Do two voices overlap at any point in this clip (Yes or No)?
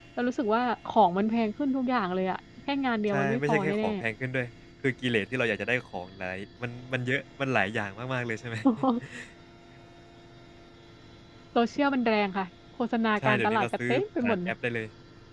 Yes